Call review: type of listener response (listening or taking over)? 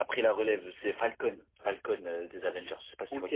taking over